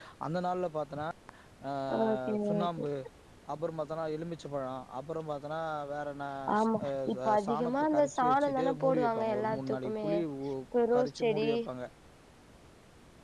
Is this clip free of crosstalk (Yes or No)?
No